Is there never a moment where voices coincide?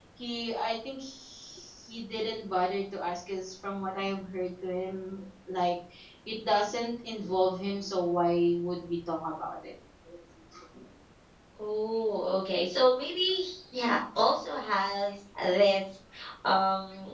Yes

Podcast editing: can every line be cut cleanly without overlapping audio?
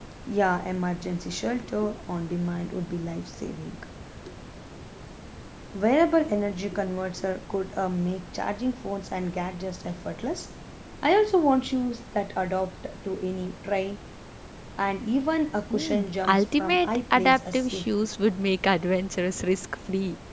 No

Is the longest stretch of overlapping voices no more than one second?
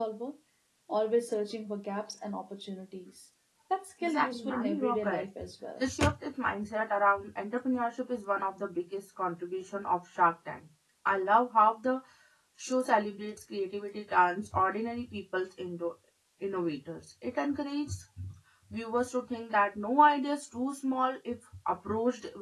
No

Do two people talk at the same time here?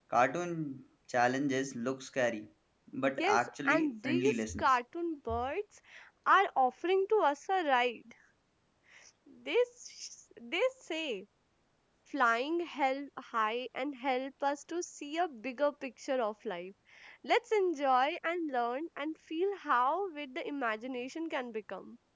Yes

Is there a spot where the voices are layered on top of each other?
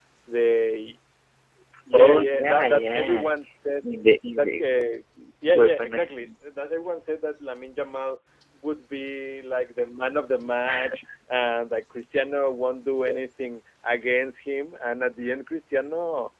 Yes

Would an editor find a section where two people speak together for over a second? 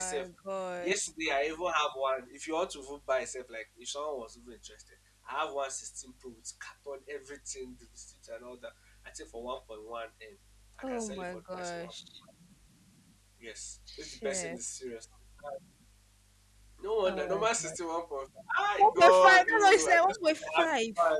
Yes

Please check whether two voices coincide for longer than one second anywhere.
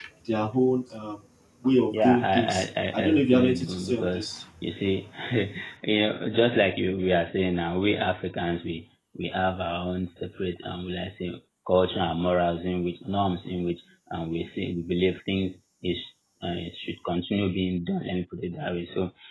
Yes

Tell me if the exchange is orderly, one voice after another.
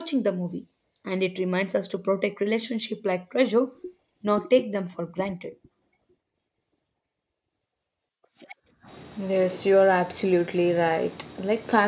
Yes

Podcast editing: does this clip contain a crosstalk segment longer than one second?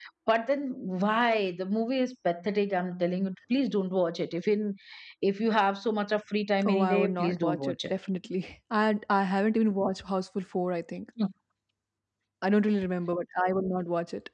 Yes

